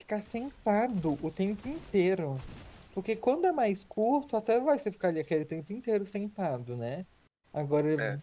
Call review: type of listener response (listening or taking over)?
listening